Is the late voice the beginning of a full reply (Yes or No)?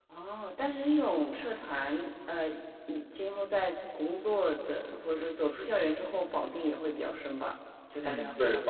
Yes